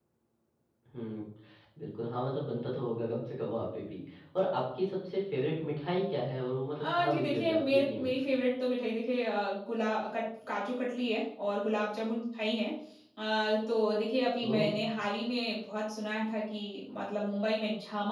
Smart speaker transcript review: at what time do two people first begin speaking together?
6.8 s

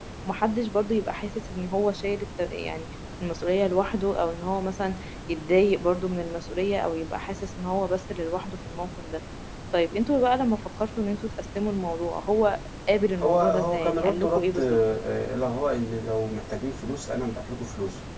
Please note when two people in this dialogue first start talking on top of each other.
13.2 s

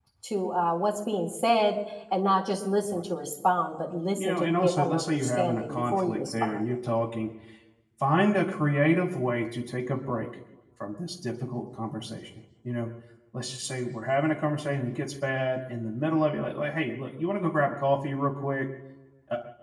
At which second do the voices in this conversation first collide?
4.1 s

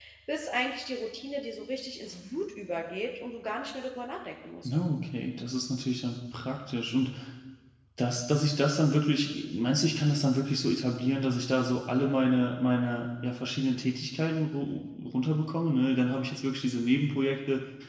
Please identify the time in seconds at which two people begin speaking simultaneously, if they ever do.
none

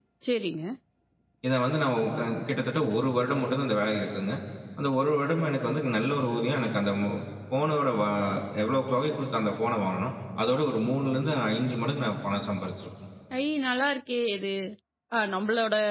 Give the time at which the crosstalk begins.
none

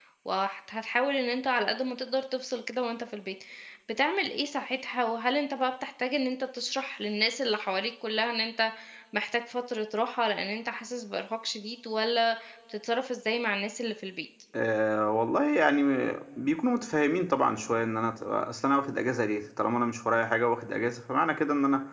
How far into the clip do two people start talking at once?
none

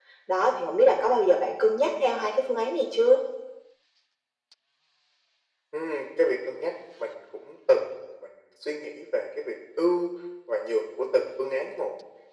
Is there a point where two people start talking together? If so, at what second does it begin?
none

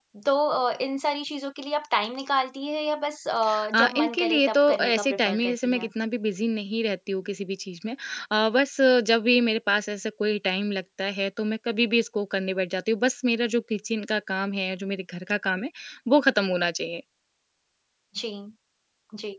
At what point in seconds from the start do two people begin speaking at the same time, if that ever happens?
3.7 s

